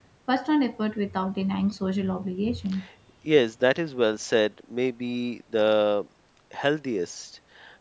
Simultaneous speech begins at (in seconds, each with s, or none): none